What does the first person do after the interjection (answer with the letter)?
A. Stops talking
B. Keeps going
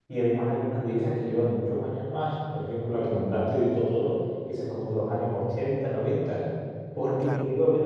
B